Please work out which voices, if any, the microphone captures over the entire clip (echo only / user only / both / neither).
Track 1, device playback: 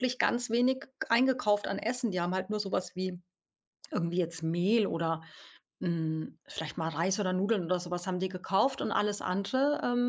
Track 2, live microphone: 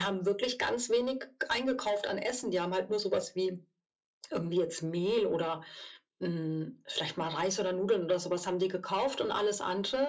echo only